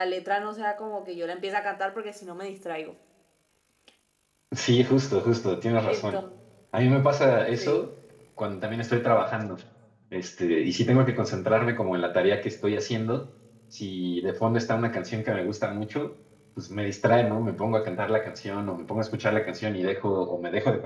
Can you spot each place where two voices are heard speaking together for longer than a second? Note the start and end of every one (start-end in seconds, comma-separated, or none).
none